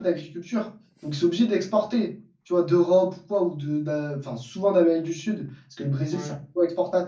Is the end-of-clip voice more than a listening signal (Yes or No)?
No